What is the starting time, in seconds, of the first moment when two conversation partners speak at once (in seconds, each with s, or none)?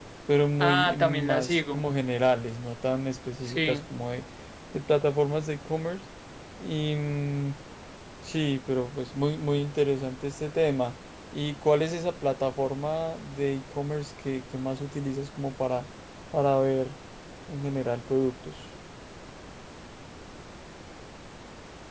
0.6 s